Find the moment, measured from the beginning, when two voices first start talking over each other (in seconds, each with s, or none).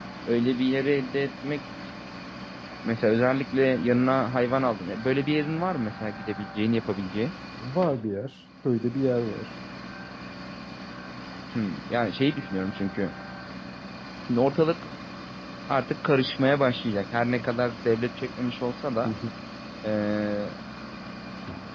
none